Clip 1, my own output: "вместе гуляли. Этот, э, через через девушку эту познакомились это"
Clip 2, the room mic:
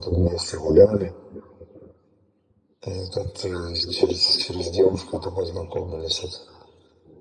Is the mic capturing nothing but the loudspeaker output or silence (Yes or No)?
Yes